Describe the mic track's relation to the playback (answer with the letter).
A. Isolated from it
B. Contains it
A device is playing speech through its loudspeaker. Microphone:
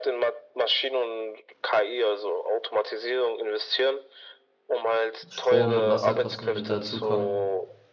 B